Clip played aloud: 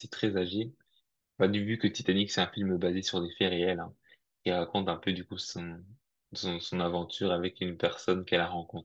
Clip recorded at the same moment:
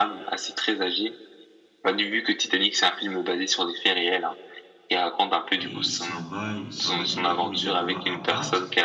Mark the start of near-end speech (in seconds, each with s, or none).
5.6 s